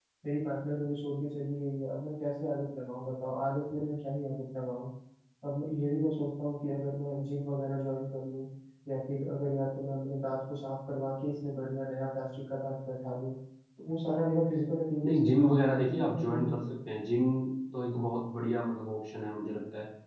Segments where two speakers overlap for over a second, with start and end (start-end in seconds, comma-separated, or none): 15.0-16.6